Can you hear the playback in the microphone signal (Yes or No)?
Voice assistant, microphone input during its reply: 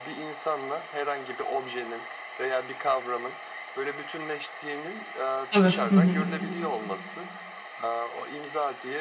Yes